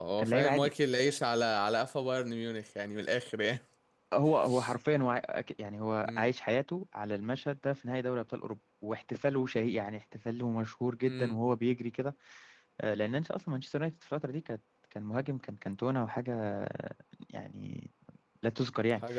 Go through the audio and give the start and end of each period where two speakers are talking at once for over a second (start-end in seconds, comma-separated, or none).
none